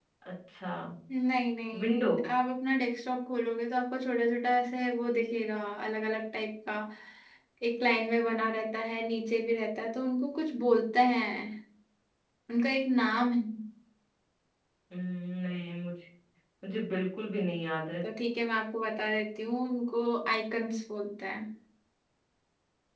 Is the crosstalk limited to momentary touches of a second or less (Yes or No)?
Yes